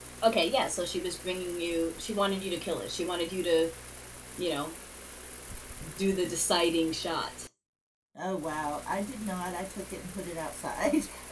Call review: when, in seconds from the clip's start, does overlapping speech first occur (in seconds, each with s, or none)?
none